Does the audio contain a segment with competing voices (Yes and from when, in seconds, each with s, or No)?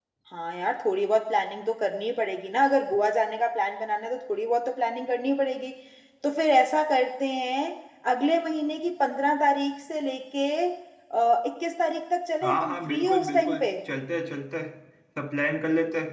Yes, from 12.4 s